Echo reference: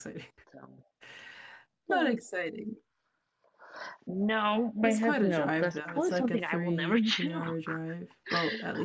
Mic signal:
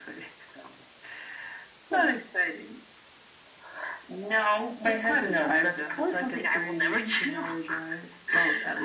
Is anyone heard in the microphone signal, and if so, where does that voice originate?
echo only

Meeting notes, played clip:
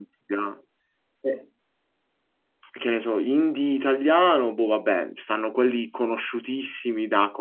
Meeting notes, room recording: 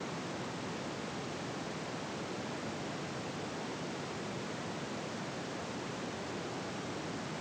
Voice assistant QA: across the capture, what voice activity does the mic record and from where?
neither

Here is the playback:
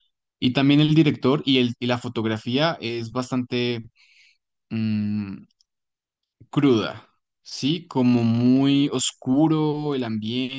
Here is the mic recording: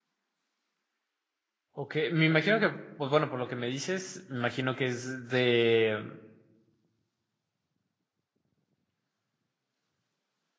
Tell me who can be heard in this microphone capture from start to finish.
user only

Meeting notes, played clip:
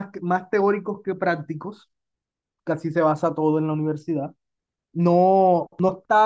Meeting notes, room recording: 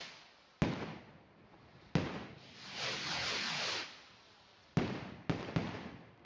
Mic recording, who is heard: neither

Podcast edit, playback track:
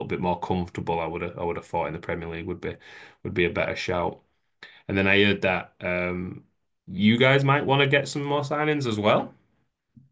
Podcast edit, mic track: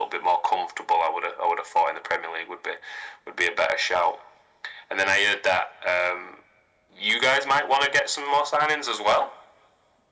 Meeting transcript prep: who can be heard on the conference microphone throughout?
echo only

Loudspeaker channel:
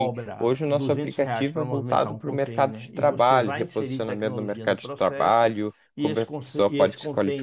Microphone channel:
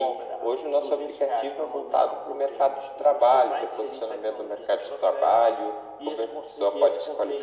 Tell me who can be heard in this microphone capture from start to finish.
echo only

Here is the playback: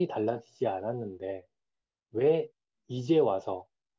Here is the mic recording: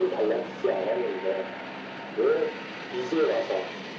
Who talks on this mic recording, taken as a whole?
echo only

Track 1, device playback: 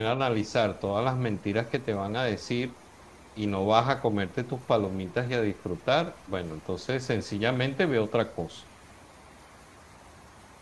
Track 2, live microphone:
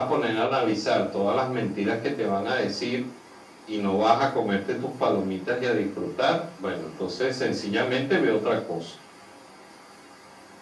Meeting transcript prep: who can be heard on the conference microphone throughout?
echo only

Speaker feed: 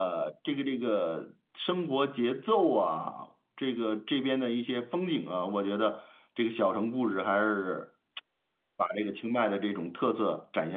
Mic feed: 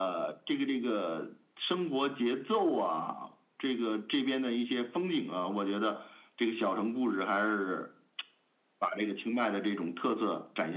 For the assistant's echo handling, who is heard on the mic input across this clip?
echo only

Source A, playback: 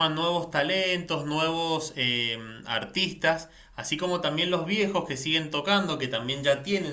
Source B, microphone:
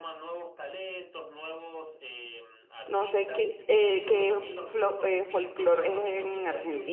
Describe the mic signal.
both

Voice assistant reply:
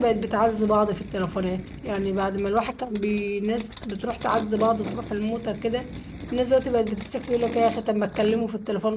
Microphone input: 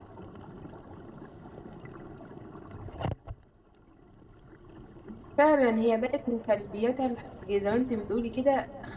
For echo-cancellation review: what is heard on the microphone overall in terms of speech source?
user only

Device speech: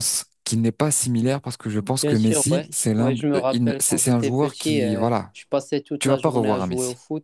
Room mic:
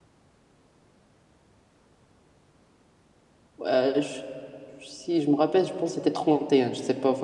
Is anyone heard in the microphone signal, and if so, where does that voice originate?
user only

